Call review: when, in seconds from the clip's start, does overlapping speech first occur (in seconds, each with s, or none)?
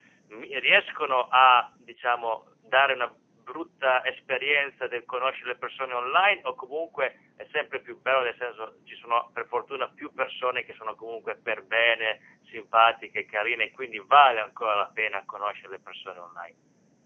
none